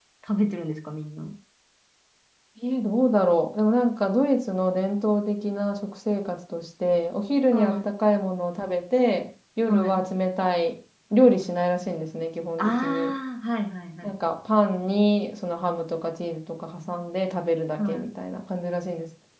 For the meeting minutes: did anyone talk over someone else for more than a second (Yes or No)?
No